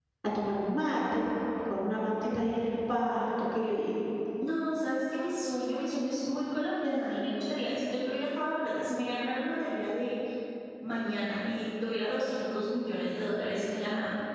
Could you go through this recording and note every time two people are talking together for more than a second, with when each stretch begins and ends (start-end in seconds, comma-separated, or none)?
none